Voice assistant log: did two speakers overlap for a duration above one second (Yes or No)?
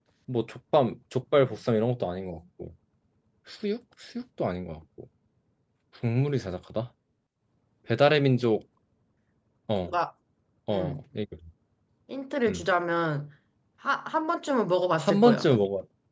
No